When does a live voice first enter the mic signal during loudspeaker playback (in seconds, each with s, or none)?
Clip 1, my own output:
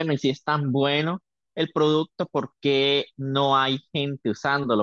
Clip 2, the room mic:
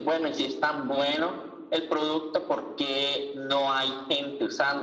none